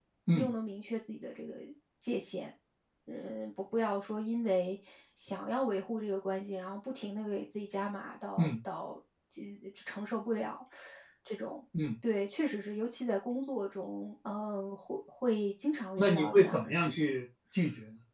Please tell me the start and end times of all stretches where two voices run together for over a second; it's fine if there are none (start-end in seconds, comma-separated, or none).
16.0-17.2